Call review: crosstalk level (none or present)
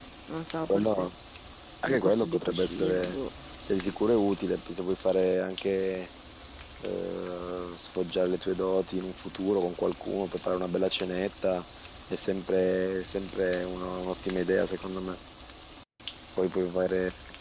present